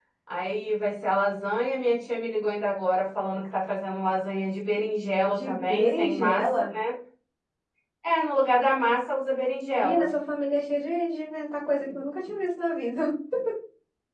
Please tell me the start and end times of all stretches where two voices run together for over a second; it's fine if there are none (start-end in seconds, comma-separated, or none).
5.4-6.7